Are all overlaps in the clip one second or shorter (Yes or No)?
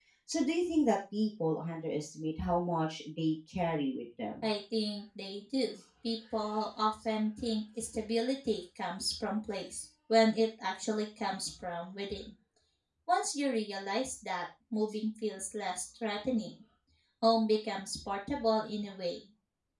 Yes